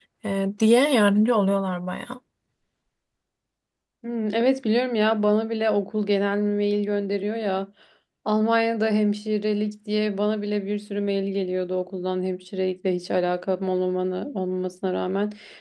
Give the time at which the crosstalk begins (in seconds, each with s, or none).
none